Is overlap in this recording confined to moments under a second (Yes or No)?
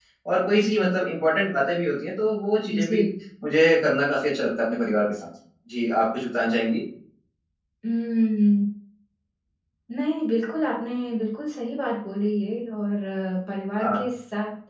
Yes